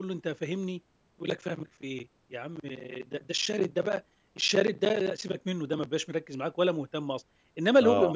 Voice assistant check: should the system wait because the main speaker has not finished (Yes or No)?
Yes